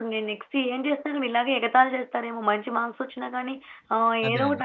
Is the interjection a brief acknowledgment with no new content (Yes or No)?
Yes